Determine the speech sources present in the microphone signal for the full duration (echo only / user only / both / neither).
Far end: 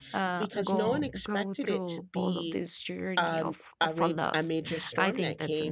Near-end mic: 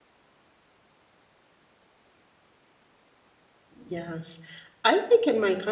user only